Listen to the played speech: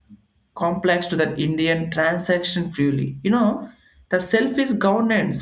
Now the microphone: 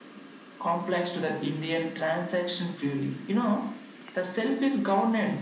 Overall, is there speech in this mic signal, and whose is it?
echo only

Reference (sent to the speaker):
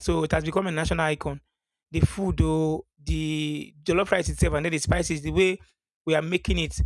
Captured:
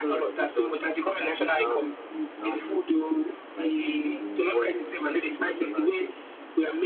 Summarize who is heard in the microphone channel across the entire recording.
both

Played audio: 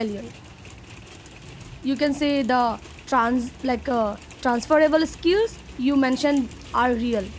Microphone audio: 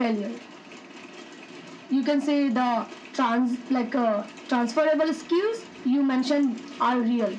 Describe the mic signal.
echo only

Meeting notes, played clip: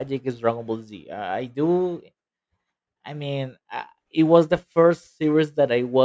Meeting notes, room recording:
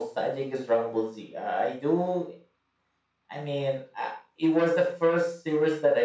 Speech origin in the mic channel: echo only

